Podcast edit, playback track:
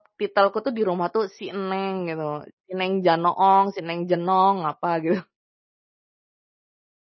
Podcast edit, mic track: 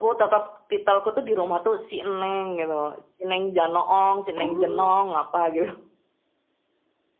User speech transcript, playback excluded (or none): Oh,